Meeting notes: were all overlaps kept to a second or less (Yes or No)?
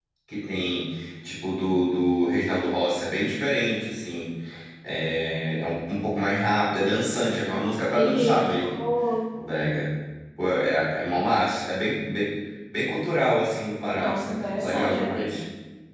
No